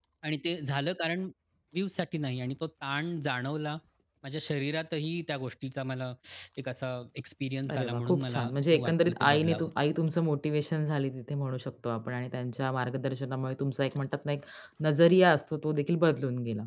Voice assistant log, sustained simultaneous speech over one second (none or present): present